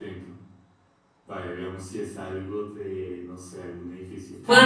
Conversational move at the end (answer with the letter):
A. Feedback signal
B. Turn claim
B